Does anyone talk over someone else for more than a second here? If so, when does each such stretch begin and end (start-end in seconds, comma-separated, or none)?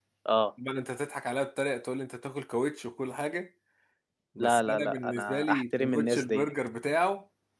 4.4-6.5